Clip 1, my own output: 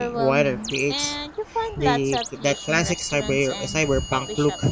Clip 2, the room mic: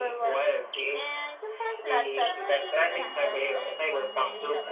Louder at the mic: echo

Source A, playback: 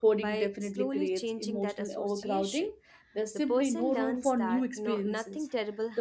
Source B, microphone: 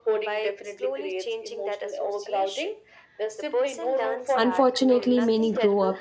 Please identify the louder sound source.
user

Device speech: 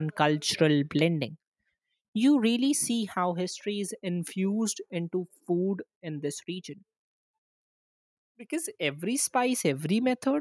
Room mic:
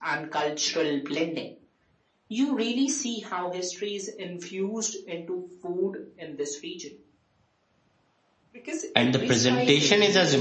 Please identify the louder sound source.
user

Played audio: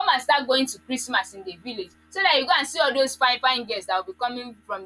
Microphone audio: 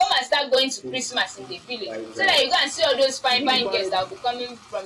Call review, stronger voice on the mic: echo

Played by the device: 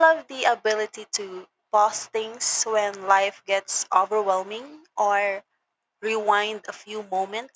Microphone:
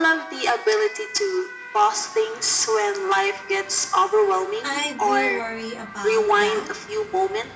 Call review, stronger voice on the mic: echo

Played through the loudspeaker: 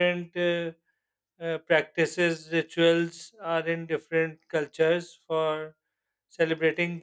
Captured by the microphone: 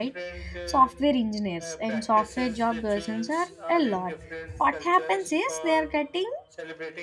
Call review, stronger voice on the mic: user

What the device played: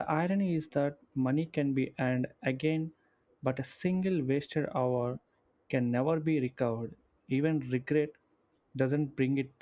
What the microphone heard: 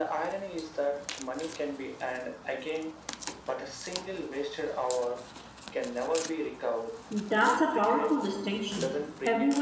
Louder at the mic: user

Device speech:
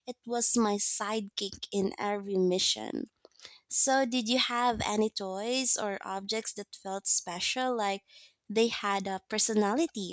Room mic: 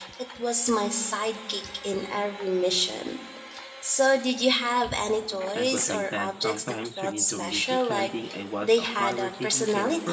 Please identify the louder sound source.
echo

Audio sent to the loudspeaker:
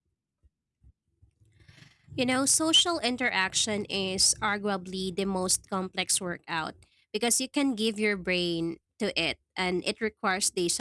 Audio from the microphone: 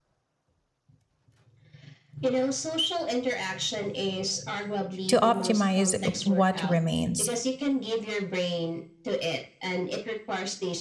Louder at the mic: user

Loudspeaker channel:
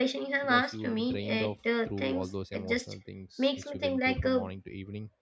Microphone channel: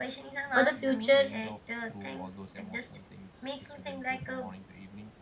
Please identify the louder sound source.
user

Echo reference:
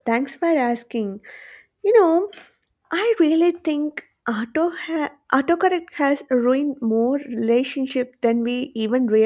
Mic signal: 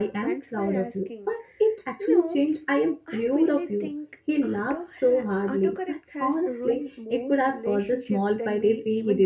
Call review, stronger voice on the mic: user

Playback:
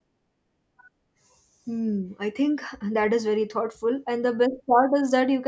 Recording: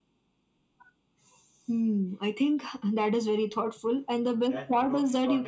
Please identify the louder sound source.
echo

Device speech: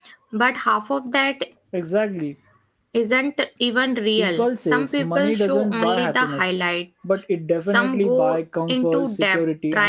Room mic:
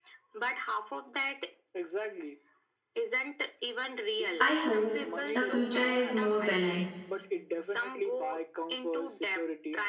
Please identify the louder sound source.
user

